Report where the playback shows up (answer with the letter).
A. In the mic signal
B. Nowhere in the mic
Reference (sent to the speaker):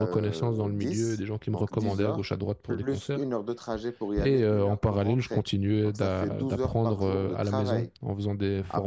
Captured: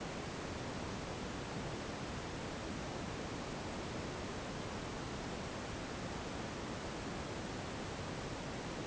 B